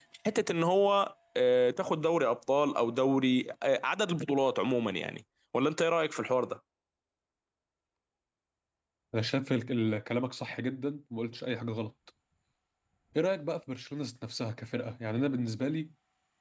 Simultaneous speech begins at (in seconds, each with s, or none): none